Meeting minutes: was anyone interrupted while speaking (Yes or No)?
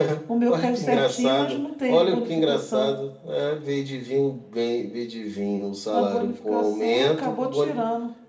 Yes